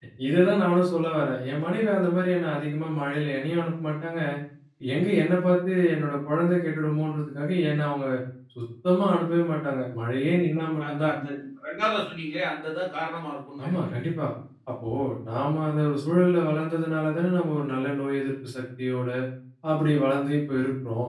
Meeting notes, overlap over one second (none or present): none